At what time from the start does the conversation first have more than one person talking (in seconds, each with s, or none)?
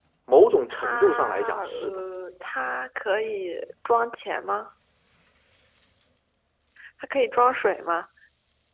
0.7 s